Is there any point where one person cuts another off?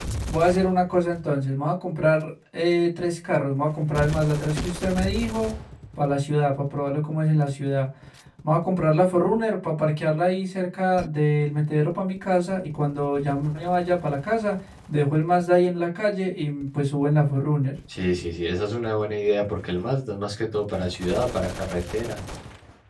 No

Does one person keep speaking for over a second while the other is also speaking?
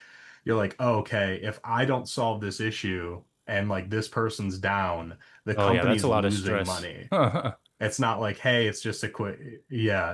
Yes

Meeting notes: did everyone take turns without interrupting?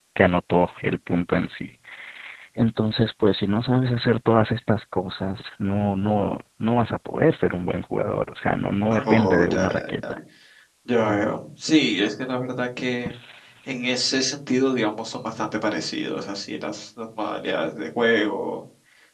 No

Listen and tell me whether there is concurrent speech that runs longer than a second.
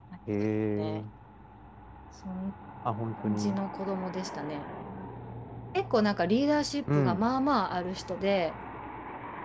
No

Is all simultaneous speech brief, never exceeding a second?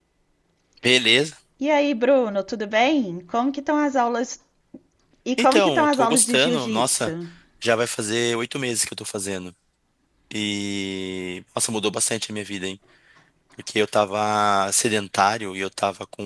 No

